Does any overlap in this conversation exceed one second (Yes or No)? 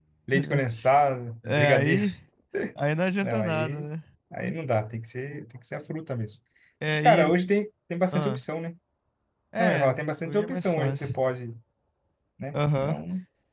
Yes